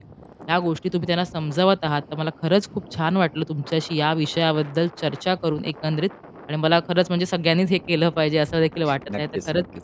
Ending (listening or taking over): listening